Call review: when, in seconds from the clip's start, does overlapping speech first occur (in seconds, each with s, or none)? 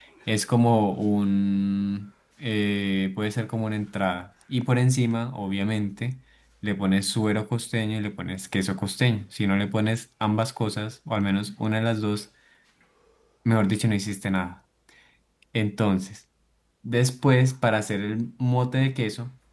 none